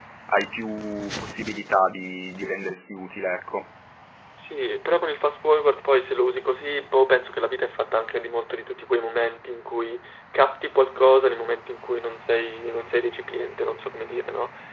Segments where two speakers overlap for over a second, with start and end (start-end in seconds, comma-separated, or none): none